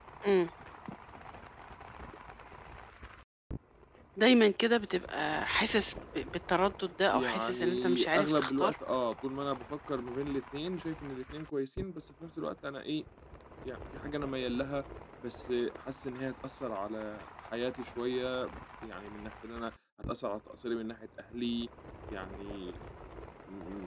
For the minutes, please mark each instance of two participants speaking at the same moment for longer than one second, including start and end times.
7.1-8.7

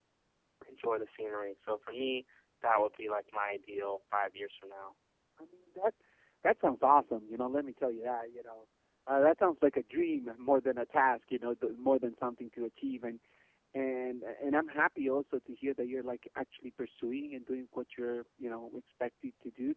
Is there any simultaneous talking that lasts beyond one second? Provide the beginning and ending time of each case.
none

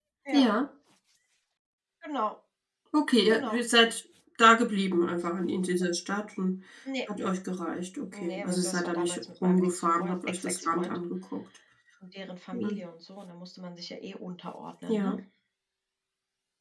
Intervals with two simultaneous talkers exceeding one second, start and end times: 8.1-11.0

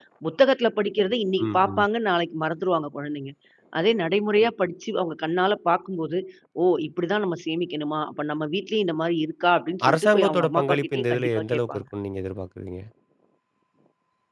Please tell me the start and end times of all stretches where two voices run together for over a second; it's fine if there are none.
9.9-11.8

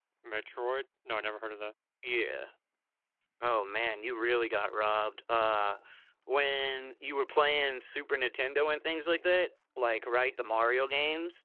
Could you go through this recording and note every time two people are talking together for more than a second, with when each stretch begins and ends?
none

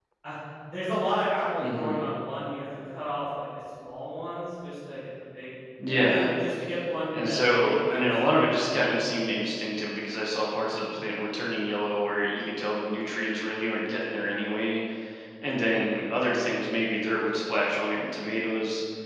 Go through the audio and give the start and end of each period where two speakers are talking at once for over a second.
7.1-8.7

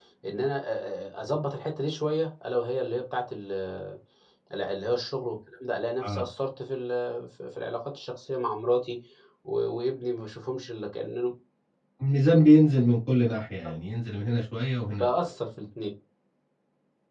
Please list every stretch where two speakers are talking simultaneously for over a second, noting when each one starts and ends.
none

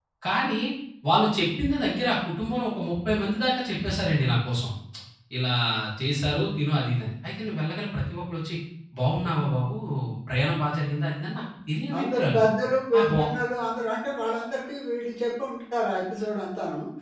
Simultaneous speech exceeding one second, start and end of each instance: none

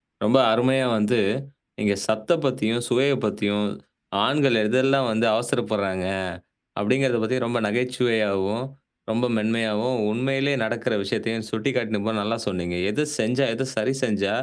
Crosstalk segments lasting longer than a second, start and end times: none

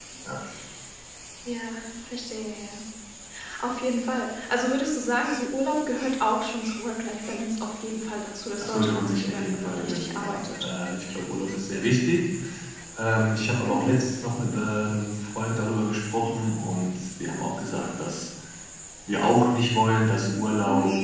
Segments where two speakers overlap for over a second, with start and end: 8.6-10.6

